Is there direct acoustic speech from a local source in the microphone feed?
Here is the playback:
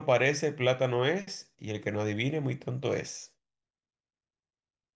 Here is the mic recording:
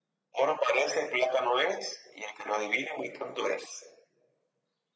No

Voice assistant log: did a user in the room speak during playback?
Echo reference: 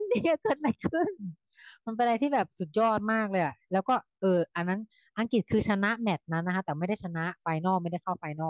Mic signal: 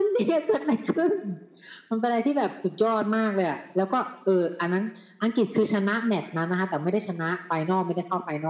No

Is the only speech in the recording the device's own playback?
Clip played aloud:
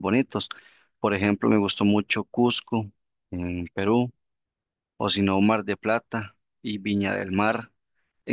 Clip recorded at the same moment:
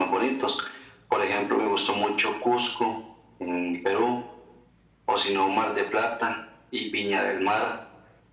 Yes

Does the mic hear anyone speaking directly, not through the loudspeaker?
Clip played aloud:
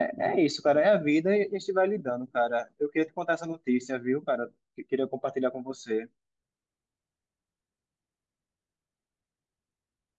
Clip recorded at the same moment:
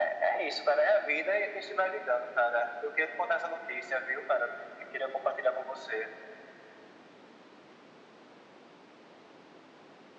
No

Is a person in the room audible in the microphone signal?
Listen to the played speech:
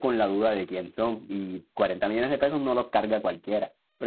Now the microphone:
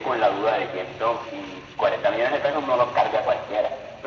No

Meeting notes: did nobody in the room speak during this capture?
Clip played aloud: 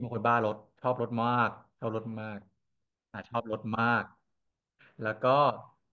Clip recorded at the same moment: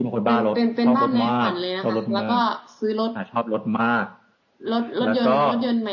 No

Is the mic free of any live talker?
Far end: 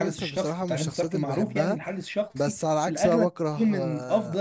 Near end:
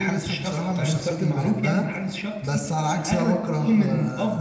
Yes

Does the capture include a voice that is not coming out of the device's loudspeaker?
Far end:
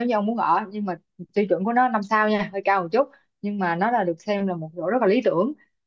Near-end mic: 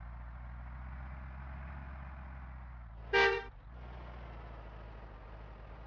No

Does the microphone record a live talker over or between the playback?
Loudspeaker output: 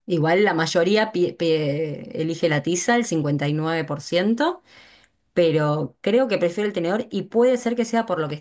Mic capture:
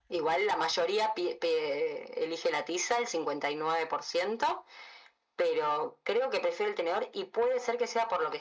No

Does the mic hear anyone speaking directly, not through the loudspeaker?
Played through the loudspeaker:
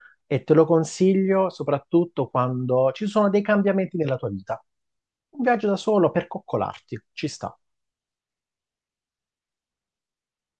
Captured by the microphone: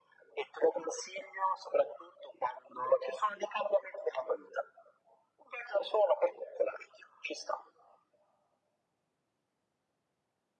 No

